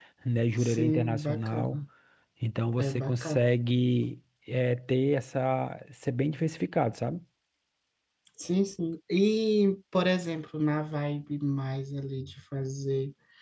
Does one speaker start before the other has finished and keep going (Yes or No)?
Yes